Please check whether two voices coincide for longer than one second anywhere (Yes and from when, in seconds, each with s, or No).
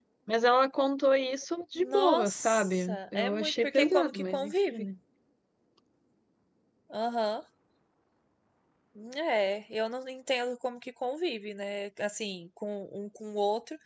Yes, from 1.8 s